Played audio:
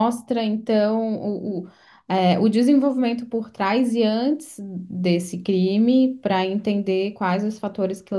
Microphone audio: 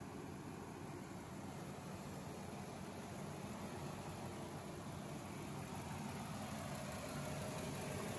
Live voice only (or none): none